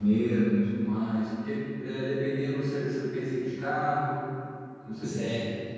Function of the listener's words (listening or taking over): taking over